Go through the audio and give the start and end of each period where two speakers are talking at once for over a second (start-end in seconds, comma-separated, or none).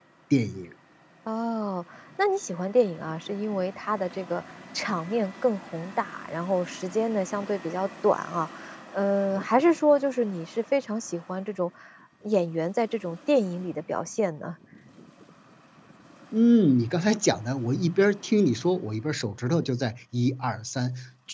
none